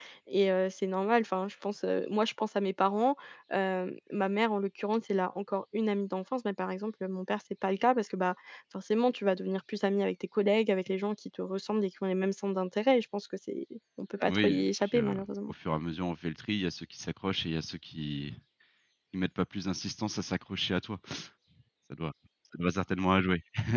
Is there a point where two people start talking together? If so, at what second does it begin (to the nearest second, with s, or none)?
14 s